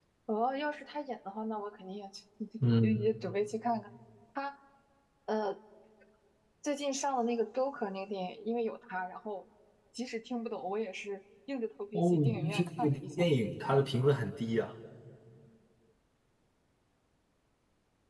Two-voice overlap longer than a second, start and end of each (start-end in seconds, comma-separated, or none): 11.9-13.3